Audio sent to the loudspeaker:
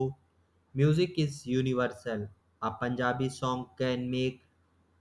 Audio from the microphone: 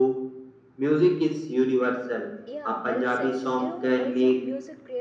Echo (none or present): present